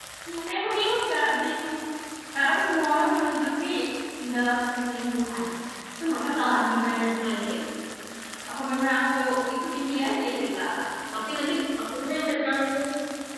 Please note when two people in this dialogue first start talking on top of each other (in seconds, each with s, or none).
none